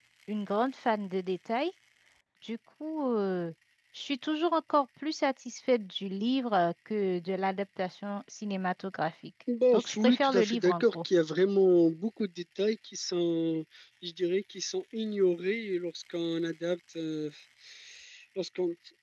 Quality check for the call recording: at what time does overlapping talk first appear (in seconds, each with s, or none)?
9.5 s